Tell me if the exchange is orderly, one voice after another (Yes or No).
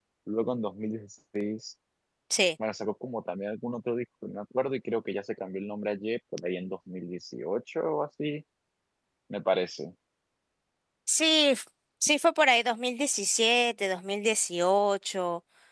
Yes